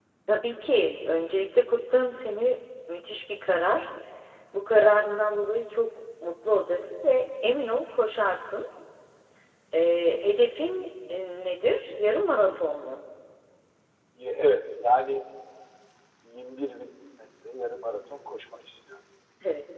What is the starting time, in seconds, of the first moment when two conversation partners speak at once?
none

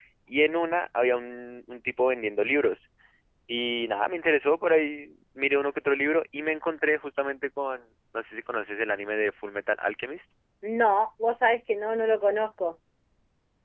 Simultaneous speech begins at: none

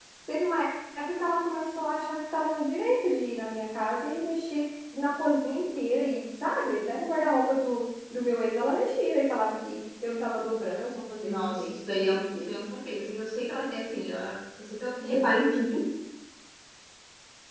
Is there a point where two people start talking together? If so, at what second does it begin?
11.2 s

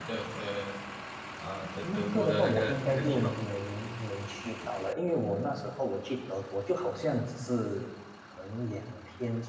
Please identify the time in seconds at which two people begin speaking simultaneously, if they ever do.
1.8 s

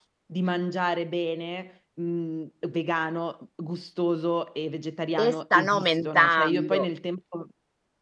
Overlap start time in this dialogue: 5.2 s

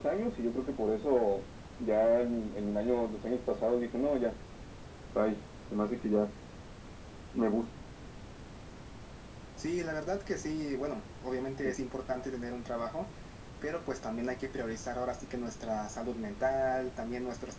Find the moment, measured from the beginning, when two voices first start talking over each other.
none

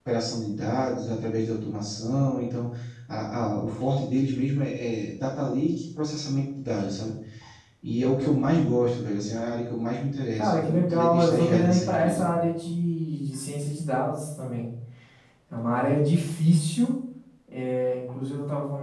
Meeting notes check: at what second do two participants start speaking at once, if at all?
10.4 s

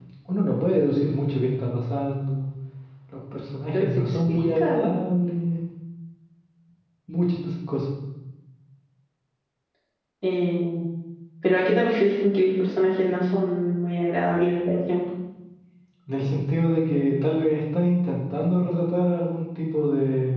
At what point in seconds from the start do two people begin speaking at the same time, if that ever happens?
3.7 s

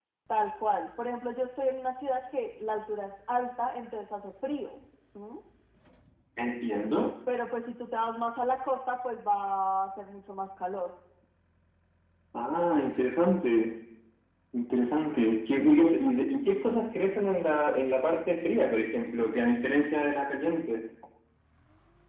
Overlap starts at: none

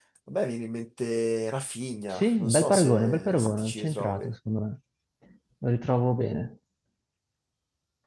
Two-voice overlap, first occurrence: 2.1 s

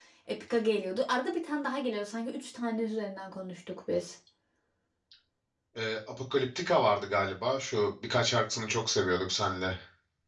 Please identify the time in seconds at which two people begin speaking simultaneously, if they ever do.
none

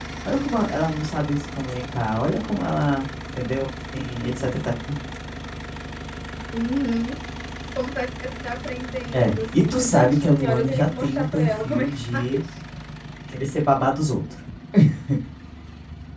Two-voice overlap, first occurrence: 9.1 s

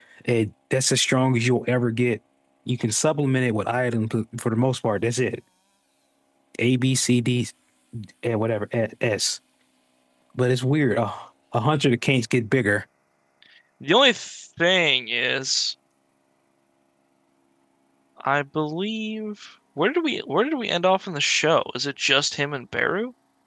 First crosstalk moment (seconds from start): none

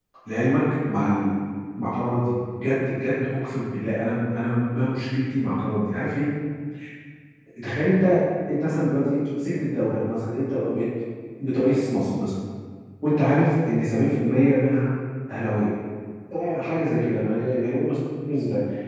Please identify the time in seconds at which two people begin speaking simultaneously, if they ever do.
none

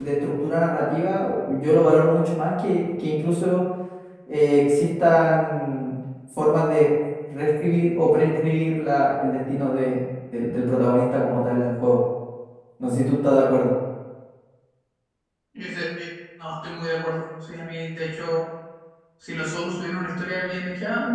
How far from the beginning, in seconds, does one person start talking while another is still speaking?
none

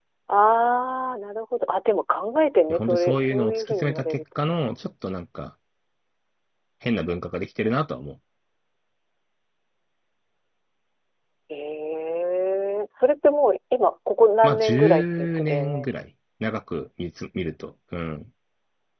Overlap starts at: 2.7 s

